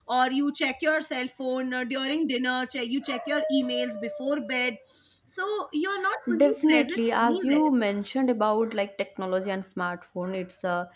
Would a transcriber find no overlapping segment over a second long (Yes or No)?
No